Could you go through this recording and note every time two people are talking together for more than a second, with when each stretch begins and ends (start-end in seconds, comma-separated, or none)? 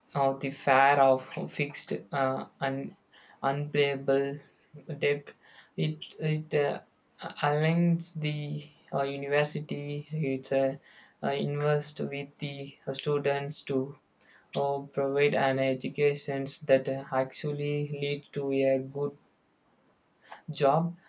none